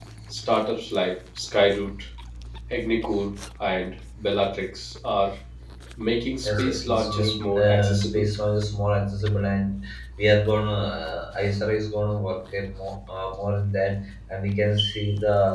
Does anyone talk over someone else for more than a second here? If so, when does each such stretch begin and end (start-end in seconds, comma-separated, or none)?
6.4-8.3